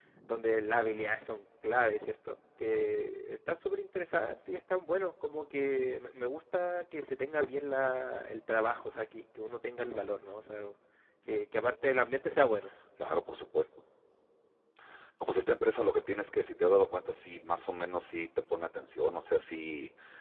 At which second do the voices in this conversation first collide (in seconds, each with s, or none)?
none